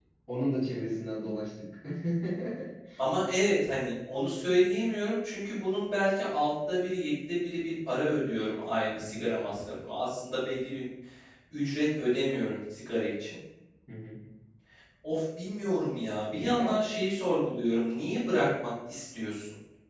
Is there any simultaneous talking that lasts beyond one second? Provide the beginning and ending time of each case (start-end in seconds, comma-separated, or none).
none